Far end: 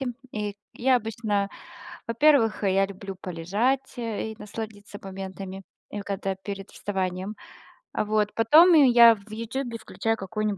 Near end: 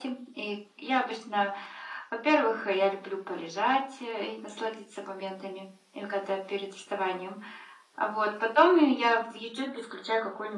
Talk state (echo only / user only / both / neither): echo only